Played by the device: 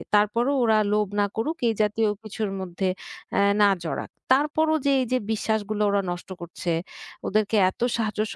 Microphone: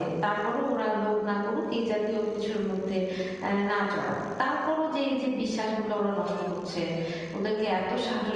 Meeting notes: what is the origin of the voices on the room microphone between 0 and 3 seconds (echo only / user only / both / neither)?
echo only